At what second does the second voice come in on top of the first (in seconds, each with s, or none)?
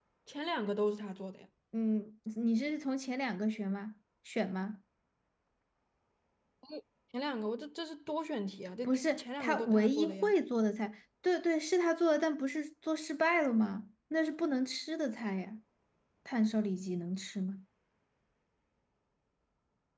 8.8 s